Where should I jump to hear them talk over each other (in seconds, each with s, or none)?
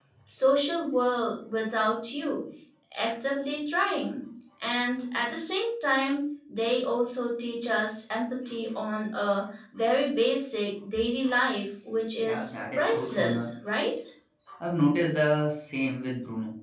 12.2 s